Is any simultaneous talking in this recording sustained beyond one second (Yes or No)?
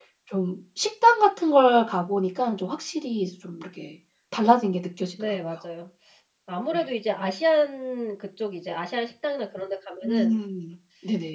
No